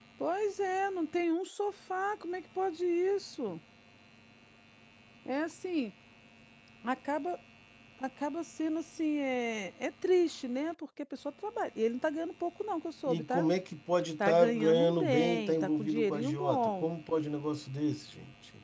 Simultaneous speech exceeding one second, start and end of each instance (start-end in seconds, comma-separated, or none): 14.2-16.9